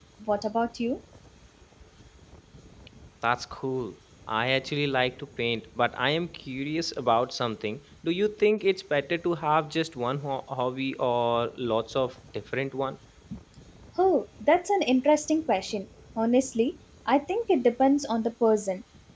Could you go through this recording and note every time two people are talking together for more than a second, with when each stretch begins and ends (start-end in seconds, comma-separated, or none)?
none